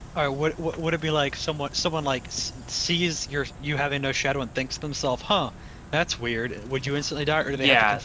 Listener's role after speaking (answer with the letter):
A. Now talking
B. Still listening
A